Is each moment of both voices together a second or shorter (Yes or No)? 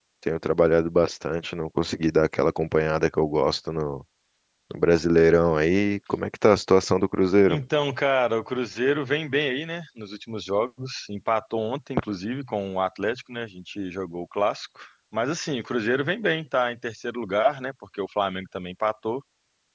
Yes